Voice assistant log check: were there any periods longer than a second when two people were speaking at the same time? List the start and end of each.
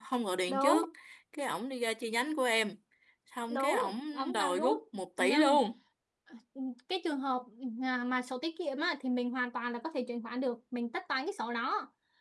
3.5-4.8

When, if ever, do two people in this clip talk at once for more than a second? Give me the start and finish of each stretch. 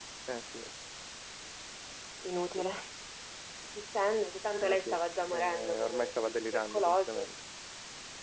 5.2-7.3

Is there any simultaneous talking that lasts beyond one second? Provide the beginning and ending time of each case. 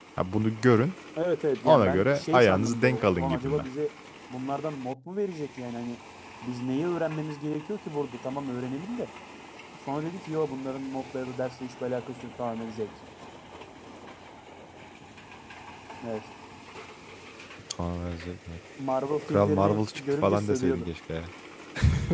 1.6-3.6, 19.3-20.9

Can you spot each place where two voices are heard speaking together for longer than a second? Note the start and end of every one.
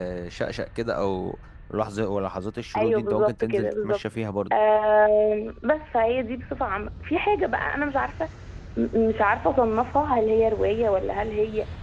2.8-4.0

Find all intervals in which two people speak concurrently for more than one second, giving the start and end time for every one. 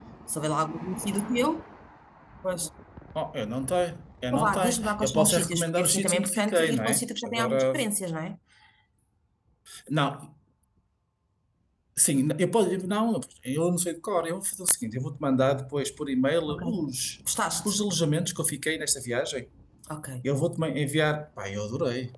4.3-7.7

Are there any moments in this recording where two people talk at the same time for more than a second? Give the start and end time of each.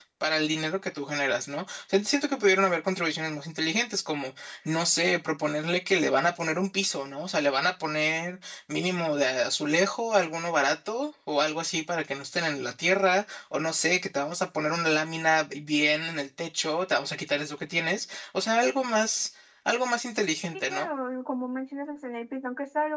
none

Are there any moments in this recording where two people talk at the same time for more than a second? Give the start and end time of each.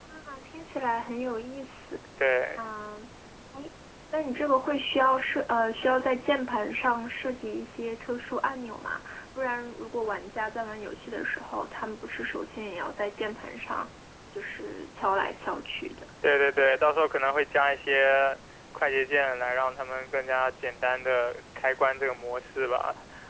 none

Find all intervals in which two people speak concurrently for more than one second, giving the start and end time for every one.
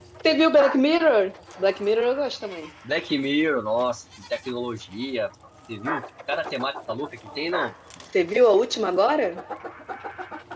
none

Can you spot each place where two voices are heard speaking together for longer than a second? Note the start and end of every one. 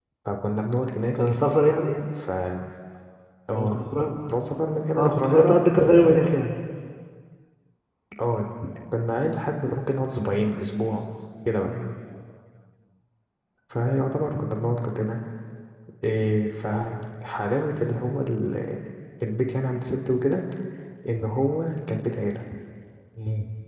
5.0-6.4

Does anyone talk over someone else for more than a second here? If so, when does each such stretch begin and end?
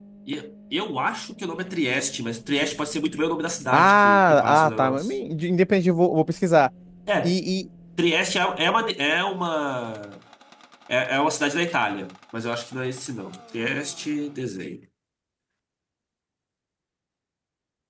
3.7-5.2

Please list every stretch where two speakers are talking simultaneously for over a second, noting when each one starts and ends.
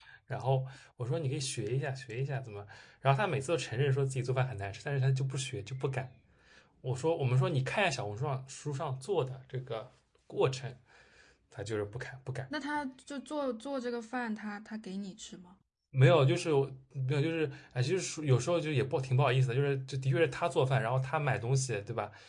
none

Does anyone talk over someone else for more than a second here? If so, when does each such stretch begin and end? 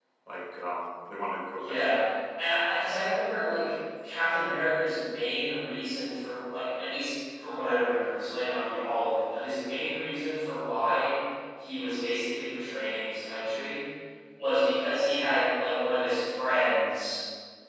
none

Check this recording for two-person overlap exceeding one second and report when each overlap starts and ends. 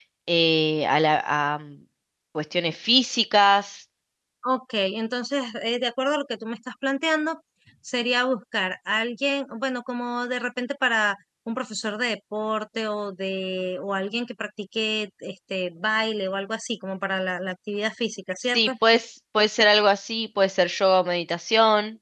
none

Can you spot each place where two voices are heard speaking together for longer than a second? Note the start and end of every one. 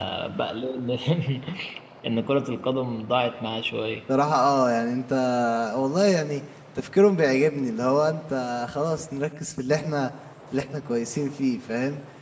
none

